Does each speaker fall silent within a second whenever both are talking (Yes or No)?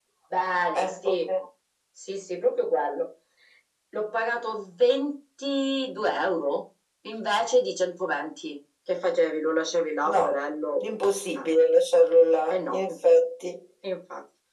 Yes